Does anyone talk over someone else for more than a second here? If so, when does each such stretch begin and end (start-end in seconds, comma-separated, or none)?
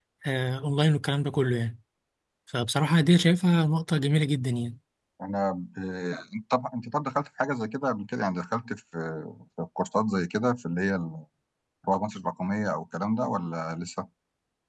none